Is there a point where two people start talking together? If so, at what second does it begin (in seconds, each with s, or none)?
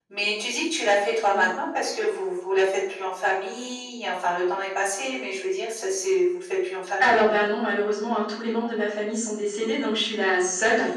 none